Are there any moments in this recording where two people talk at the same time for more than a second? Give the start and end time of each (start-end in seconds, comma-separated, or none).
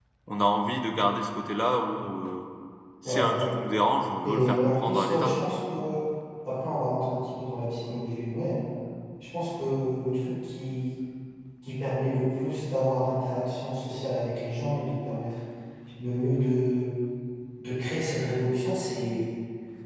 4.2-5.5